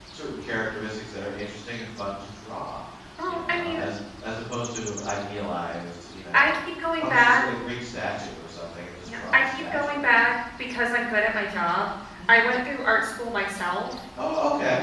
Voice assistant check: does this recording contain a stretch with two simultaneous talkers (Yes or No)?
Yes